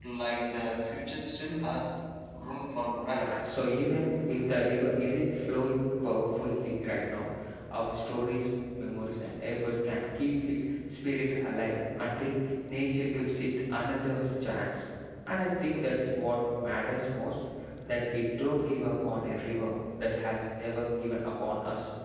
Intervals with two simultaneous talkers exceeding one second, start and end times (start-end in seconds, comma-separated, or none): none